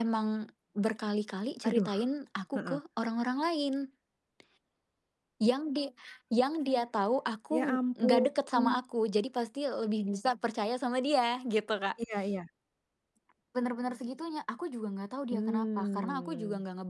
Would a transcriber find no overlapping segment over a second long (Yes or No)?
No